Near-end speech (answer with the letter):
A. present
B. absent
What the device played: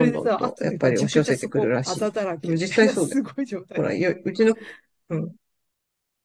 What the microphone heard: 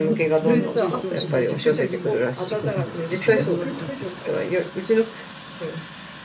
A